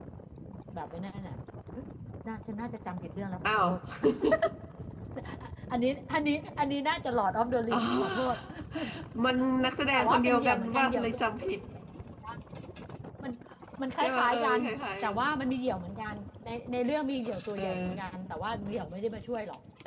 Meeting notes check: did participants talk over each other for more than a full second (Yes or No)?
Yes